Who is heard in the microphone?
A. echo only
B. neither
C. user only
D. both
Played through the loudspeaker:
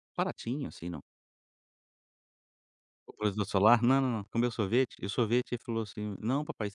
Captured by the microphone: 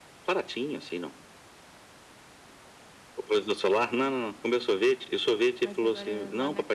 D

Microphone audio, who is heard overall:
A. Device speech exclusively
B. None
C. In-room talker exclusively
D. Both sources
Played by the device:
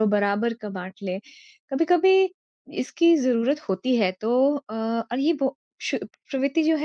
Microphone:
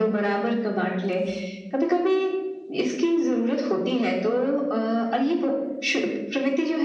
A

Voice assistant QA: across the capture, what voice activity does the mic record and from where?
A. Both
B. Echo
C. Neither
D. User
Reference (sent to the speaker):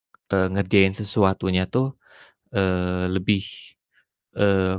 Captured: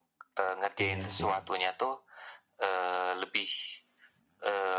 A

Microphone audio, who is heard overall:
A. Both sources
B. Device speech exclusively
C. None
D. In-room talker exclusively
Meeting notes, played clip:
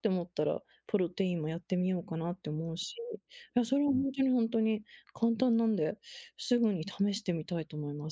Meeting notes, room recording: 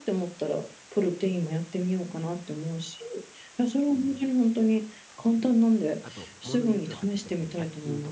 A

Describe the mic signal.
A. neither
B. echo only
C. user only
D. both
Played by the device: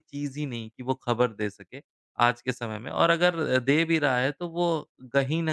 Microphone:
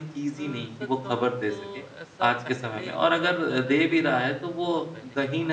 D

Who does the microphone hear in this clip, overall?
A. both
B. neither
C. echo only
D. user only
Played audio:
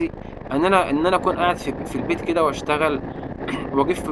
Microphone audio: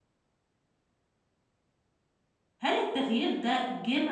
D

